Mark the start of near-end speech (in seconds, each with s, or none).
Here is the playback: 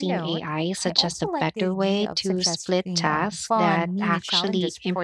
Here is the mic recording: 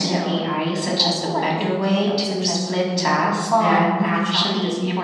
none